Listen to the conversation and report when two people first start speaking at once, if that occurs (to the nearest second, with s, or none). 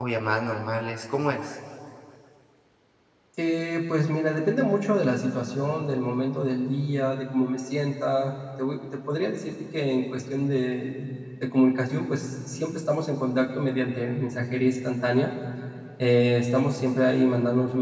none